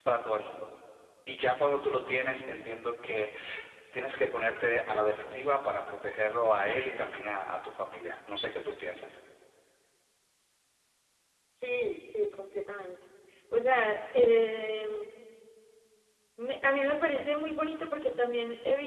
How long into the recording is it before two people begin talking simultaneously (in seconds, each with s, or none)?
none